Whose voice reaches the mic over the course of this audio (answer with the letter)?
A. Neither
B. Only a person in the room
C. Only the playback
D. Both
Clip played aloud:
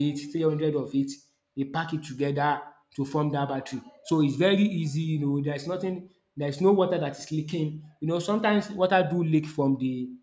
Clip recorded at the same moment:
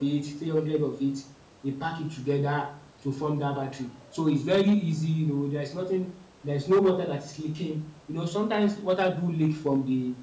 C